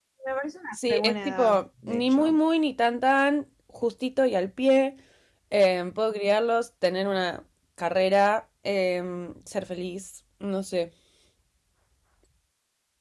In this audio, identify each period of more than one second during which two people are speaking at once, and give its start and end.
0.8-2.4

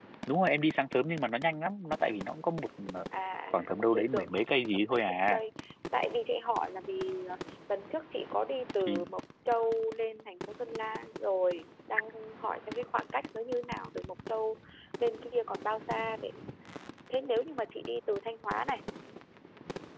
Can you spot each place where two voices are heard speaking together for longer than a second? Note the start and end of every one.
3.5-5.4

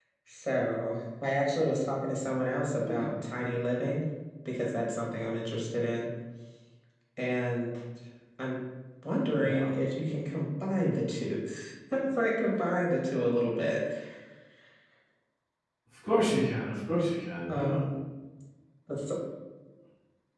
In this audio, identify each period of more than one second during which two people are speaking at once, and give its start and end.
none

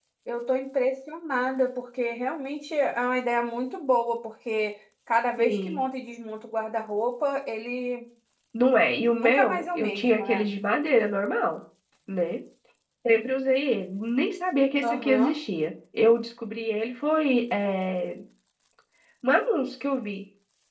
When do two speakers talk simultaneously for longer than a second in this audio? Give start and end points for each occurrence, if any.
9.1-10.5

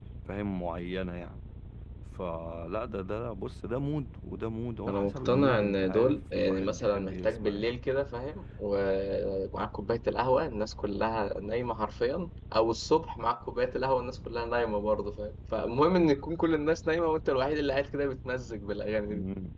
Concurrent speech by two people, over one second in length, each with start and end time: 4.9-7.8

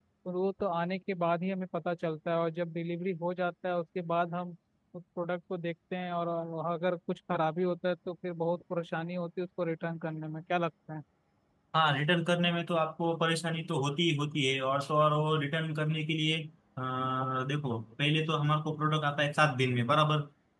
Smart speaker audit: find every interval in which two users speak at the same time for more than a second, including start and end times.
none

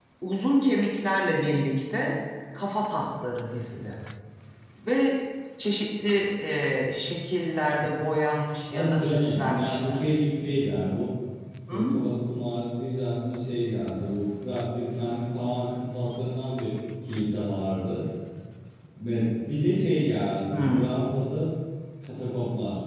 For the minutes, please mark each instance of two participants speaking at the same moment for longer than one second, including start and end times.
8.7-10.0

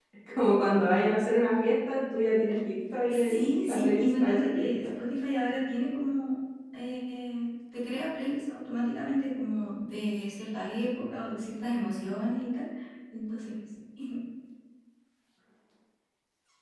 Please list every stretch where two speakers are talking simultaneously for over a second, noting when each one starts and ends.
3.1-4.7

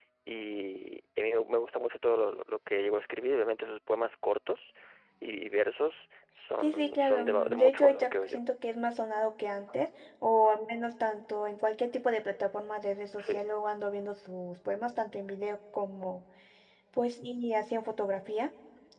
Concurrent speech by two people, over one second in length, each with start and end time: 6.6-8.4

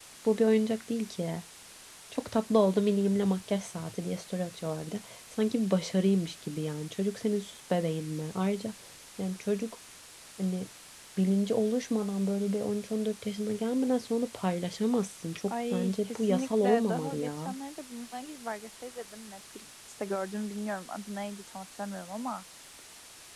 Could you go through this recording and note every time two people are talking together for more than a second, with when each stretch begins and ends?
15.5-17.6

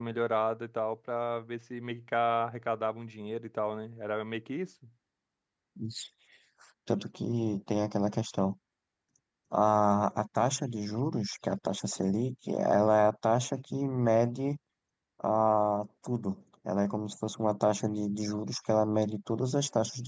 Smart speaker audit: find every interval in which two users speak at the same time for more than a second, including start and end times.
none

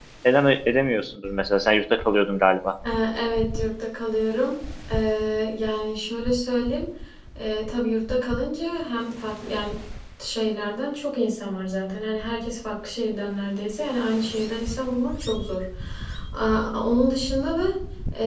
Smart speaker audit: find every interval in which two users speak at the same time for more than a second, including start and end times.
none

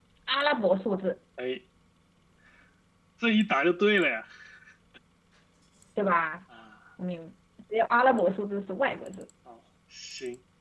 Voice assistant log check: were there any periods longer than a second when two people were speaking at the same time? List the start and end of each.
none

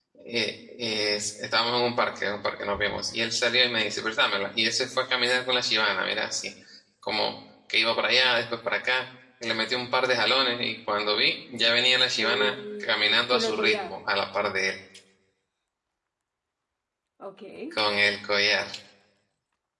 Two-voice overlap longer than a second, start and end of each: 12.2-13.9

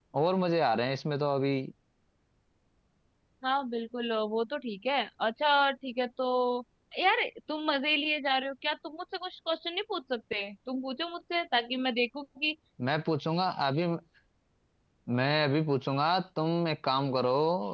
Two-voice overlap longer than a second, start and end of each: none

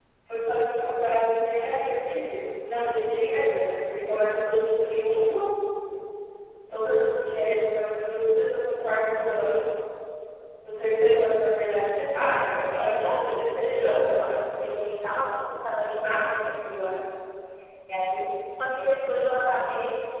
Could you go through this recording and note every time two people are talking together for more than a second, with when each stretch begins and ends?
11.8-14.2

